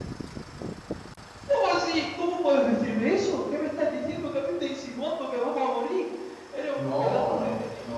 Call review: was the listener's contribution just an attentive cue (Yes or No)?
No